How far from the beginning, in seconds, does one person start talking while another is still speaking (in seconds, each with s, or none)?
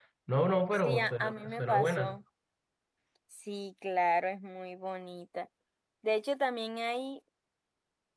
0.7 s